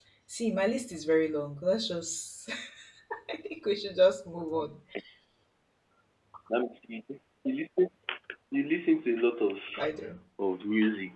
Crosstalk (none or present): none